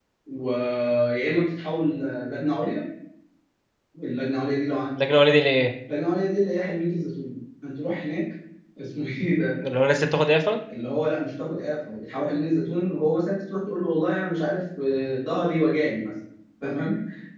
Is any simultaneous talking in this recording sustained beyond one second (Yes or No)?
No